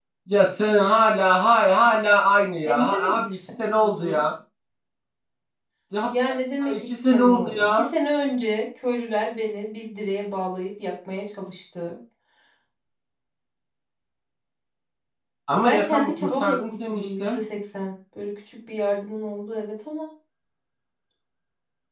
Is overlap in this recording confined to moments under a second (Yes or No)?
No